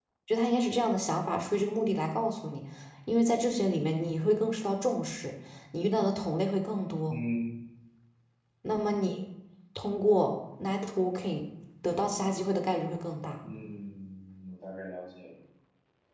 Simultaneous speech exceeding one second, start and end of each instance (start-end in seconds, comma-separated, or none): none